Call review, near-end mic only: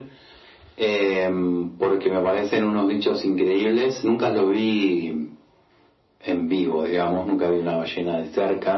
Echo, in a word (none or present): present